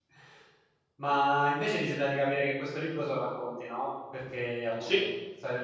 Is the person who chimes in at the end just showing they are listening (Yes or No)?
Yes